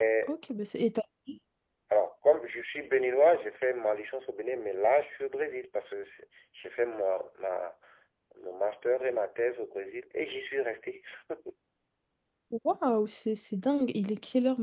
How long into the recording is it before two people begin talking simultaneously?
none

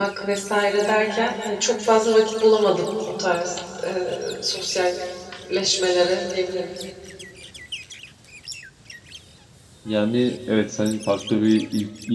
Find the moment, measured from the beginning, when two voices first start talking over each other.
none

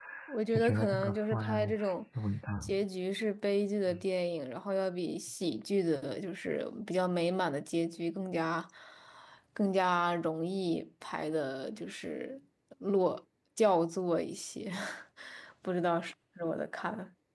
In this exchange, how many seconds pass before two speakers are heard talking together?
0.5 s

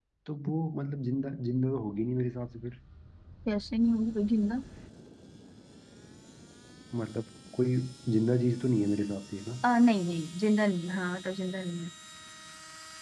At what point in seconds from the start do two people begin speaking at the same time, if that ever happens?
none

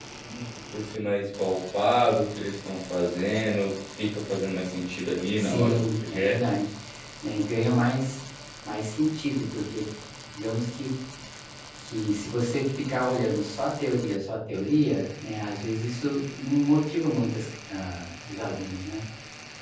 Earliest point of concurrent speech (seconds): 5.4 s

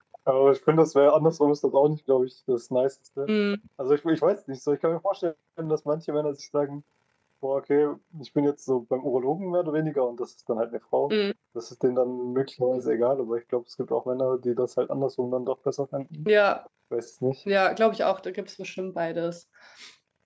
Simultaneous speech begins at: none

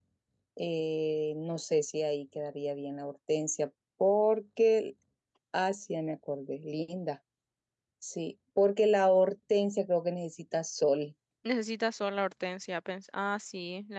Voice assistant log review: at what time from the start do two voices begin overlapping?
none

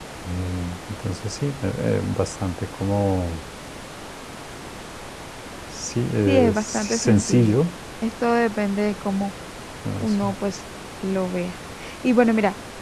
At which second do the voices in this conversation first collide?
6.3 s

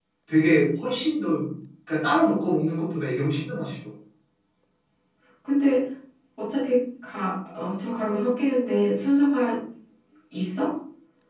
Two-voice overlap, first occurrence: none

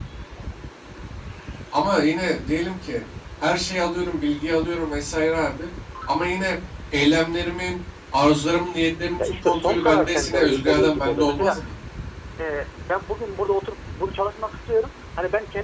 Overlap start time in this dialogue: 9.2 s

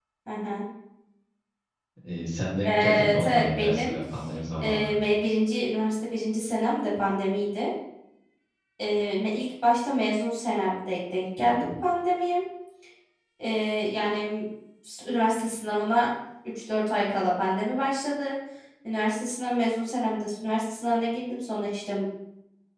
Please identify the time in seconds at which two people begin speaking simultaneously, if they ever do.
2.6 s

